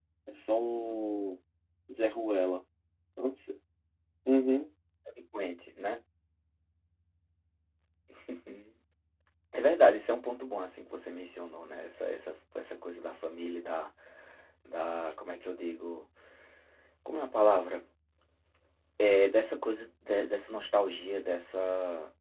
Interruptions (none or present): none